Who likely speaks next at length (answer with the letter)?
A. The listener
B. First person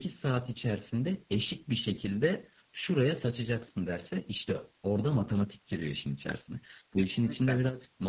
B